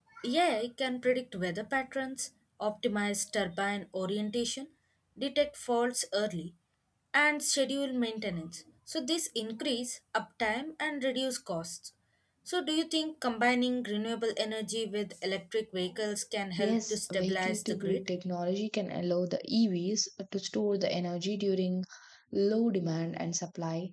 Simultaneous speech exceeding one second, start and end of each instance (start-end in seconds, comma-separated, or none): 16.6-18.1